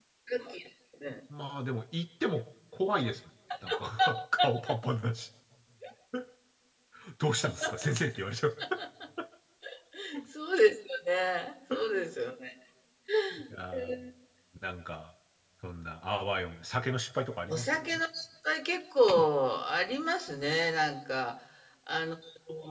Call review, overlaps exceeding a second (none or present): none